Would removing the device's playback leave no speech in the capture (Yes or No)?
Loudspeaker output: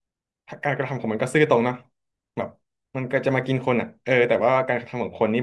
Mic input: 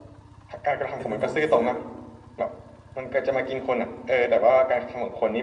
No